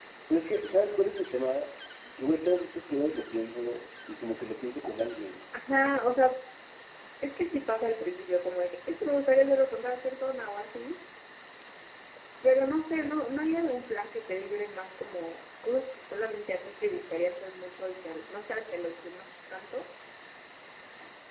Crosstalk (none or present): none